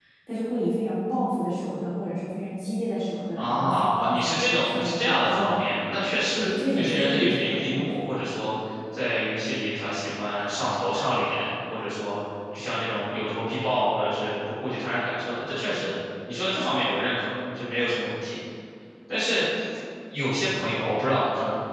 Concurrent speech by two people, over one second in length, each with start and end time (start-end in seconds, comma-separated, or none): 3.4-5.9, 6.3-8.1